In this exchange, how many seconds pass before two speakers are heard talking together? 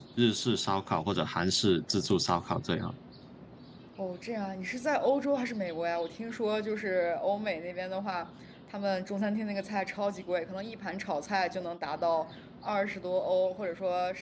none

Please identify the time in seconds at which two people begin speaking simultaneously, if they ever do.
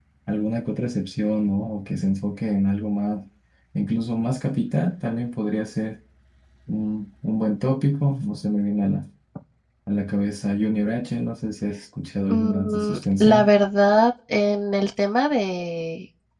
12 s

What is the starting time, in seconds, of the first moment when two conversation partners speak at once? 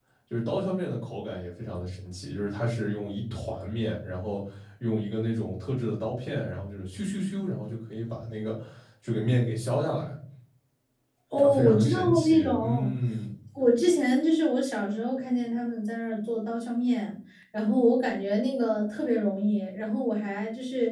11 s

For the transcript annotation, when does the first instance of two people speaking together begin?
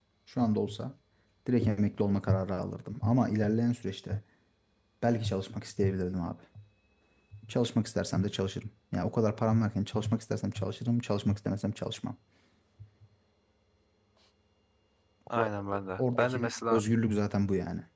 16 s

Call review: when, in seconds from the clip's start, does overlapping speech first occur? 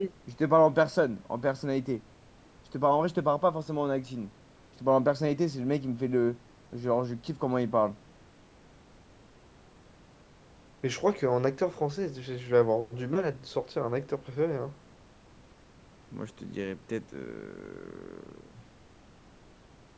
none

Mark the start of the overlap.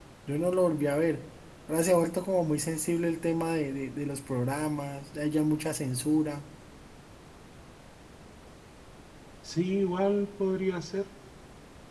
none

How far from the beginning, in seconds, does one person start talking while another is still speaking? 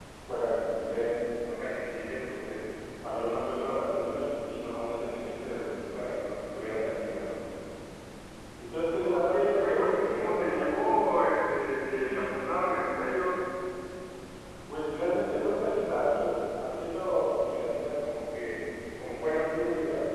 9 s

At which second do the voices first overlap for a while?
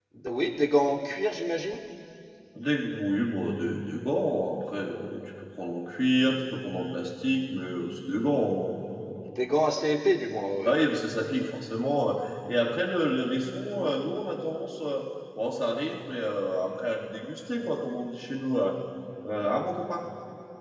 none

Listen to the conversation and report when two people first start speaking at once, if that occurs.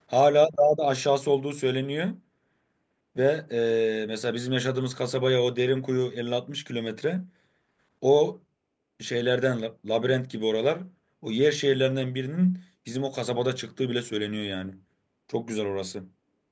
none

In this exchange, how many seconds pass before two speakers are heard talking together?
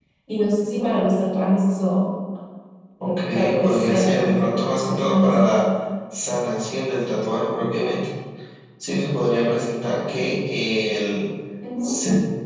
3 s

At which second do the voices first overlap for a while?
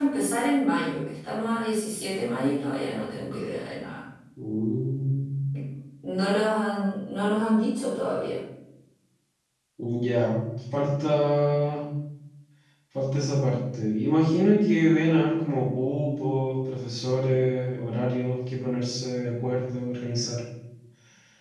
none

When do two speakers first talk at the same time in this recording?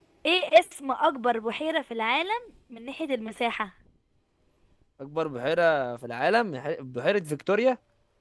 none

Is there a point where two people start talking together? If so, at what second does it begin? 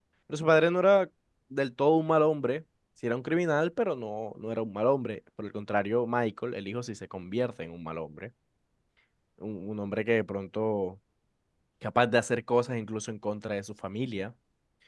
none

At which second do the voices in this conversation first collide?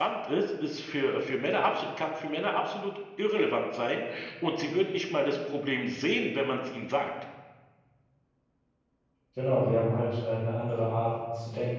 none

